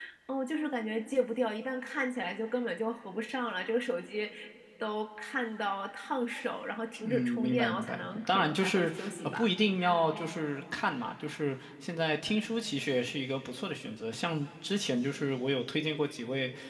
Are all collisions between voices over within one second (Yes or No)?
No